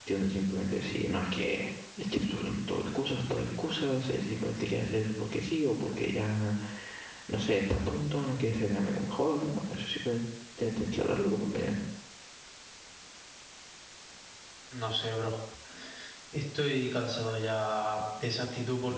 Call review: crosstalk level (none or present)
none